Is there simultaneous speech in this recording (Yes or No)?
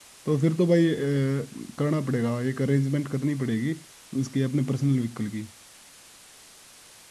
No